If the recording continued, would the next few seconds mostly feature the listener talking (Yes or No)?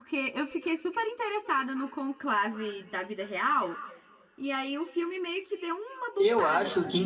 Yes